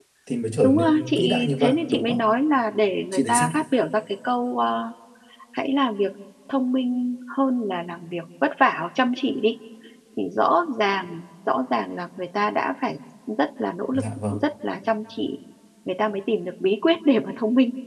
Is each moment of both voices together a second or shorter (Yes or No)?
No